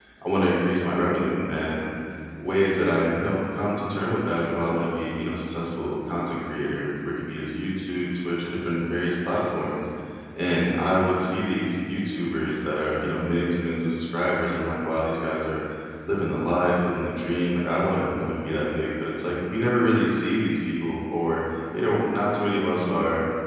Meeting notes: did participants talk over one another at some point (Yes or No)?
No